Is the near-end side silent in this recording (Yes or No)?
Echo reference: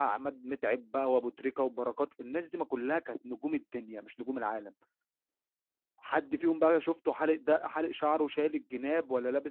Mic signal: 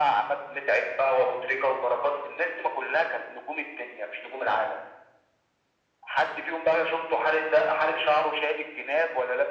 Yes